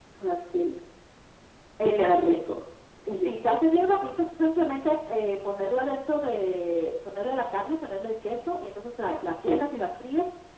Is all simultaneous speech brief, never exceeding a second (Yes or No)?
Yes